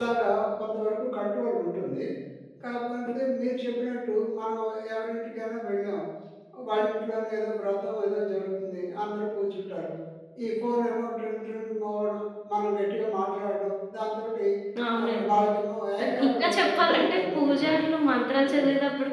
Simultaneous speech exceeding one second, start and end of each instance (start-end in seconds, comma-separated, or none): 16.0-17.9